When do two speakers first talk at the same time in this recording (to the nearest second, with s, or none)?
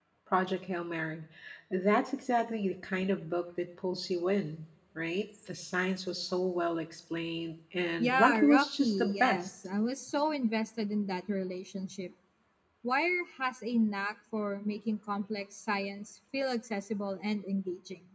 8 s